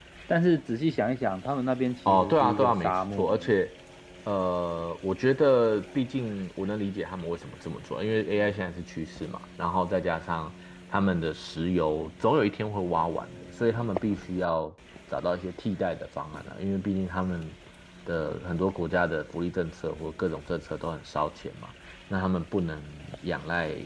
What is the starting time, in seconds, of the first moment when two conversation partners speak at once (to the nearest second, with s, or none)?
2 s